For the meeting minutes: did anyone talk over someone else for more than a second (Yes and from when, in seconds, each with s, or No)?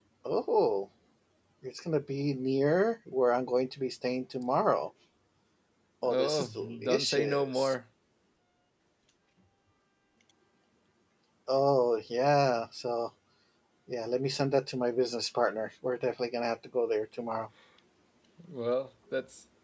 Yes, from 6.1 s